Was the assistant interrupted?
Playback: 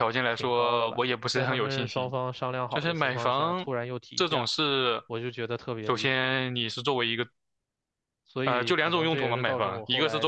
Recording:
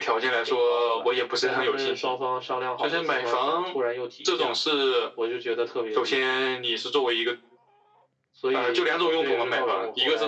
No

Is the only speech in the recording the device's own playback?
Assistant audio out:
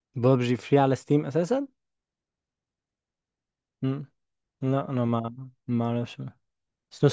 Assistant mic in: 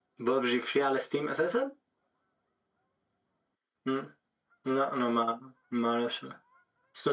Yes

